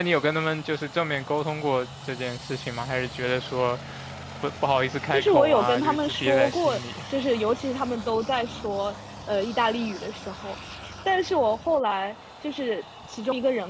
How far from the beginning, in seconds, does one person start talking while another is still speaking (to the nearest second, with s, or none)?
5 s